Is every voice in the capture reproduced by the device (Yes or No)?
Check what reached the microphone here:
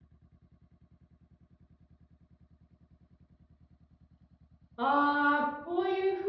No